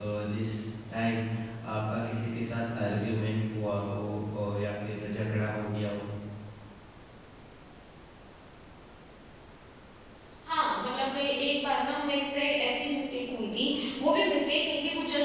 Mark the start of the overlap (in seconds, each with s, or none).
none